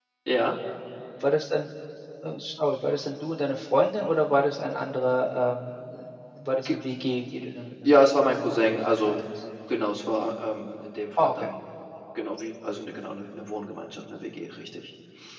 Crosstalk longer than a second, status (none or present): present